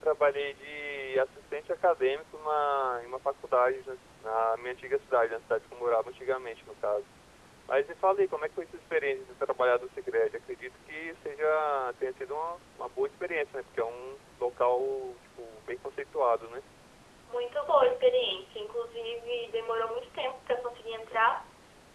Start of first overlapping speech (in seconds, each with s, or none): none